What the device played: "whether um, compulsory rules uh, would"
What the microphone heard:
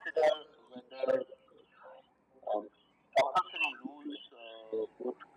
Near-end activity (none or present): none